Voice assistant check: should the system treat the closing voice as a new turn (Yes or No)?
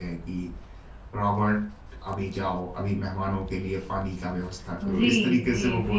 Yes